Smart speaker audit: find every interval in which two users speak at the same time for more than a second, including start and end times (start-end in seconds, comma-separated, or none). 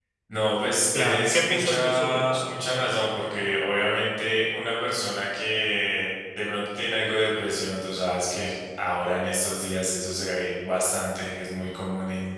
0.9-2.4